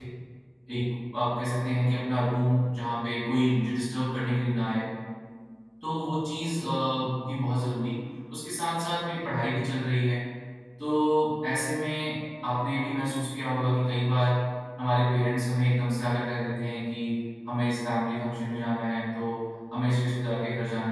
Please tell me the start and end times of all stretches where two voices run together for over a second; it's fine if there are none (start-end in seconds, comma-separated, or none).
none